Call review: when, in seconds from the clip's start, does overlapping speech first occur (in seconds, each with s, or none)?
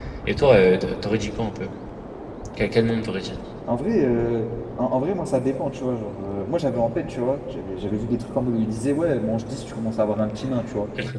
none